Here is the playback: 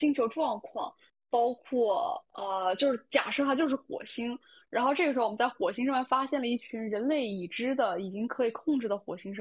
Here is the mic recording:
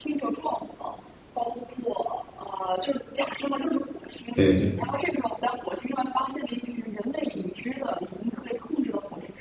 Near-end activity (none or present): present